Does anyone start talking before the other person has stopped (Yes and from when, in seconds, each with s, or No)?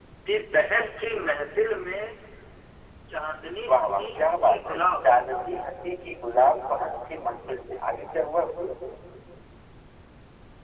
Yes, from 3.7 s